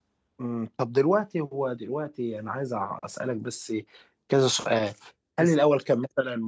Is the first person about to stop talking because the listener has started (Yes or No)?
No